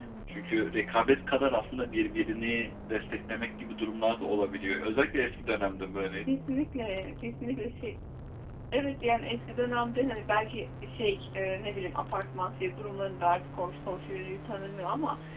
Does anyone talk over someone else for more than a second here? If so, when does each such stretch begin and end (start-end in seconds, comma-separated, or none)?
none